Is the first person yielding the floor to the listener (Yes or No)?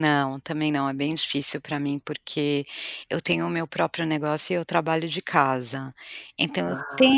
No